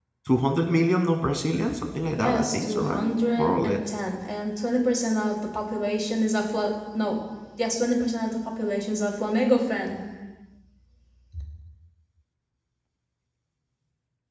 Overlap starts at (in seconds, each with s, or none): 2.2 s